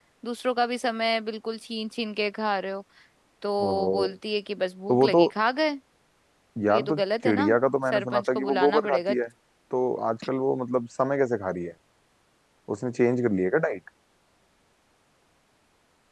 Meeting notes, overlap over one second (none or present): present